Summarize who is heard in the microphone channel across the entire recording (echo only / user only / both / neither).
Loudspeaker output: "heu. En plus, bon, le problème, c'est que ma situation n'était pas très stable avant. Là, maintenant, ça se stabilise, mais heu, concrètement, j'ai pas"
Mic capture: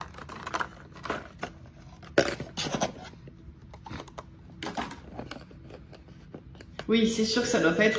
user only